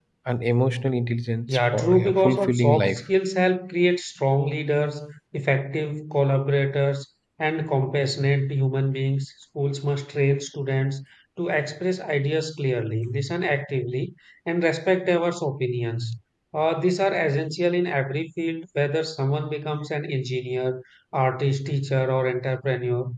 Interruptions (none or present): present